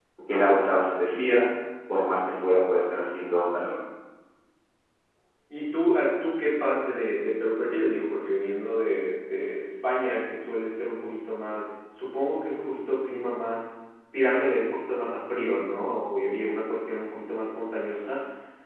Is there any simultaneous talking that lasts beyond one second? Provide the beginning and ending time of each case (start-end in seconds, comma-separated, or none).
none